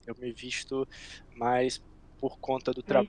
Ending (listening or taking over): listening